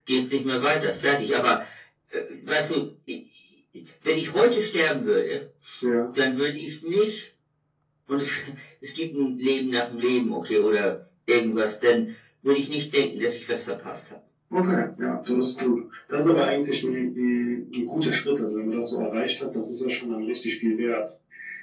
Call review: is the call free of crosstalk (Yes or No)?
Yes